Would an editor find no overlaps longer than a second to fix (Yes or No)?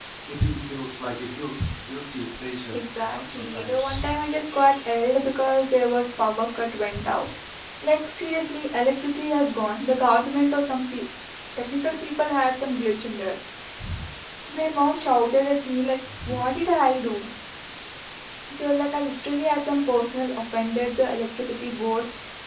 No